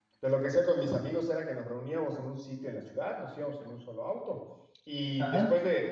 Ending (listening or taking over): listening